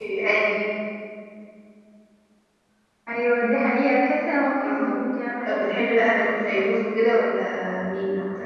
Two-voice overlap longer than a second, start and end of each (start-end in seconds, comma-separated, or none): 5.4-6.8